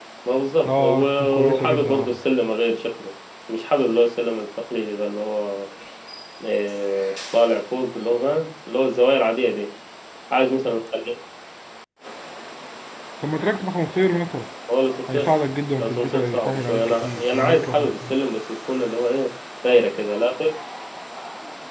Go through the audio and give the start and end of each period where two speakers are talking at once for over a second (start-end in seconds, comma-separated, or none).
0.8-2.2, 15.8-18.2